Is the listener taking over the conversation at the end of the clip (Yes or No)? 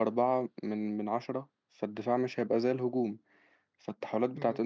No